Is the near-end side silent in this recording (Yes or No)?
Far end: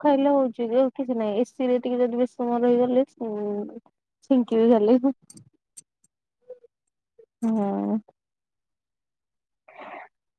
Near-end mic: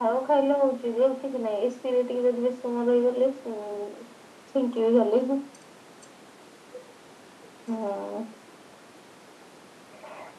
Yes